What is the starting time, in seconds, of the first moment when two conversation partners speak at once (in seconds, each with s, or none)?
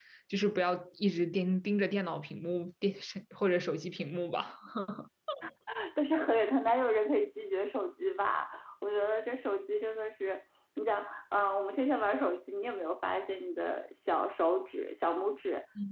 none